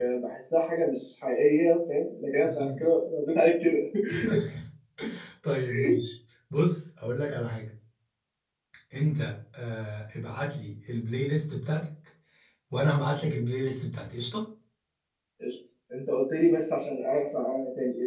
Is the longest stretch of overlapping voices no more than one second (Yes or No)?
Yes